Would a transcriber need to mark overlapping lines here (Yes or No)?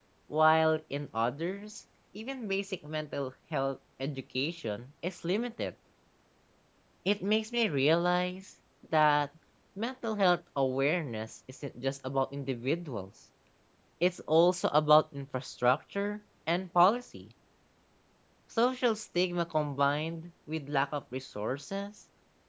No